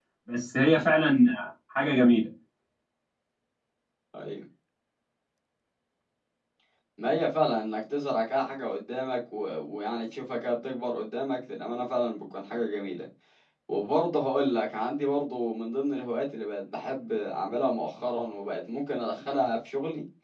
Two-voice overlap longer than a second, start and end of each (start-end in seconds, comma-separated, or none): none